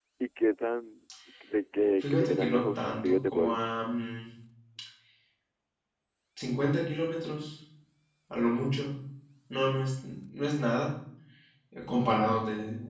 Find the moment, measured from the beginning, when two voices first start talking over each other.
2.0 s

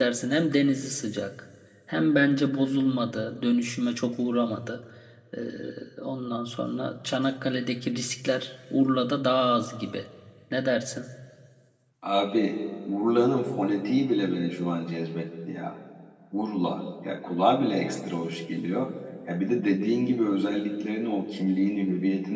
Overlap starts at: none

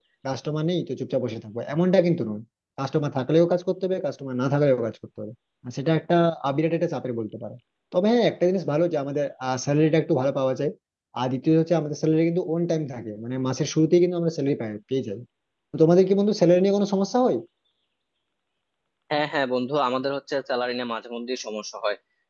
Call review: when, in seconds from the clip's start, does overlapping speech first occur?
none

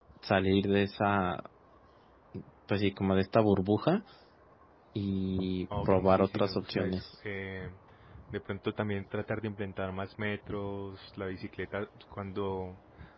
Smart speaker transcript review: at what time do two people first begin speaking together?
5.7 s

